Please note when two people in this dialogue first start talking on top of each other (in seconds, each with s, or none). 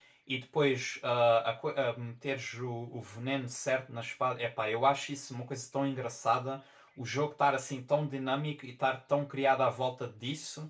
none